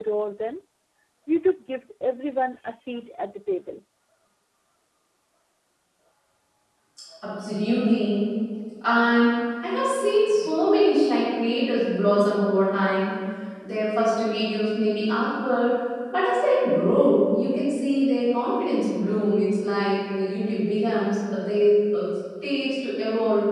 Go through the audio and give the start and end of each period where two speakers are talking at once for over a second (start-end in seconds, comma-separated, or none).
none